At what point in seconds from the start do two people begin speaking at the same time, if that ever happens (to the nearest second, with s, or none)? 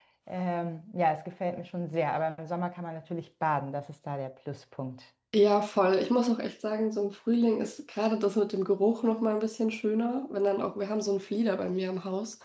none